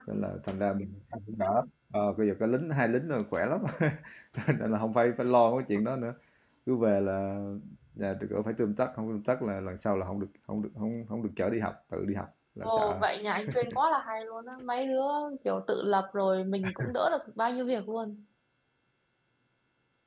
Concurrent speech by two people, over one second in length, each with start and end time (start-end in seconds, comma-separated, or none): none